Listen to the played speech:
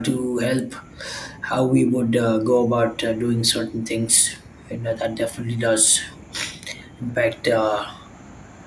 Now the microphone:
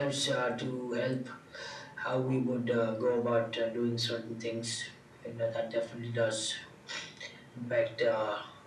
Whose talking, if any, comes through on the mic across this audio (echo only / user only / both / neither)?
echo only